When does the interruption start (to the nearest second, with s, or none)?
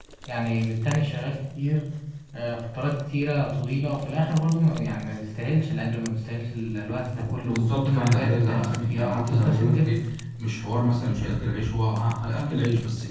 7 s